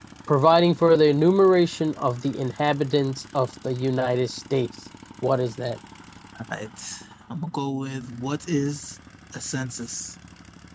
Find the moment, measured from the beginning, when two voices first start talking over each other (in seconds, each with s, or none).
none